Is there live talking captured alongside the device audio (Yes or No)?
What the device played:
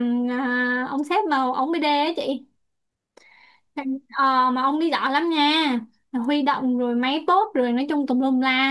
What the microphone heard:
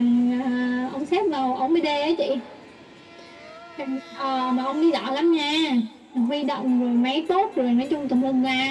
No